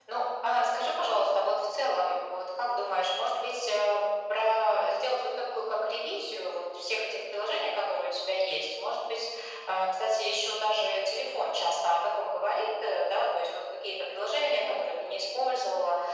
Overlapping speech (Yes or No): No